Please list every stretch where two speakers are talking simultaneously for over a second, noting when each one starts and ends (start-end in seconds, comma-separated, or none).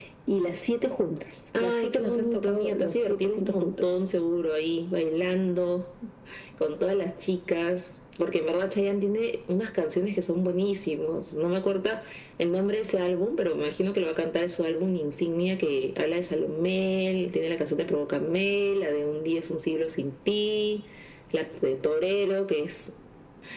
1.6-3.9